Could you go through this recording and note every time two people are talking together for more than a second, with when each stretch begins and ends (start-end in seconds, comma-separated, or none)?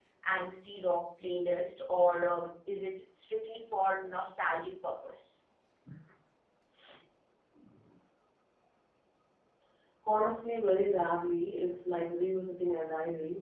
none